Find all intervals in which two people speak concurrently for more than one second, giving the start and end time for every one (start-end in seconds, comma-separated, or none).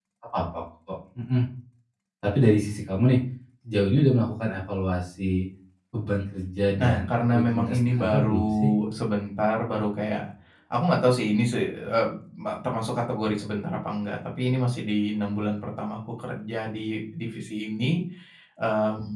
6.8-8.7